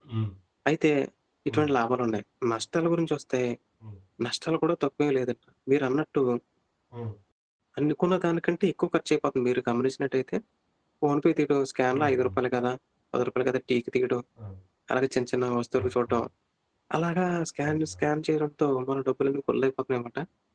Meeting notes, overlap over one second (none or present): none